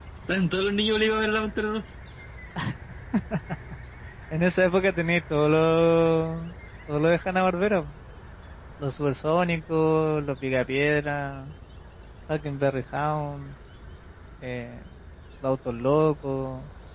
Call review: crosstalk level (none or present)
none